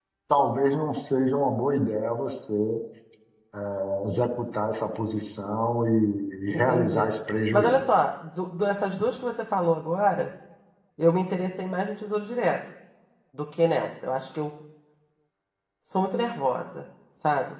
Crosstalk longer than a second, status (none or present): none